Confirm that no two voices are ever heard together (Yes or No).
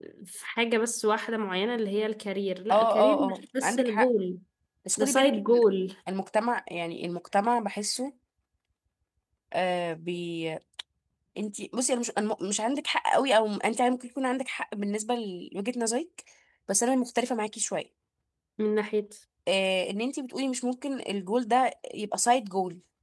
No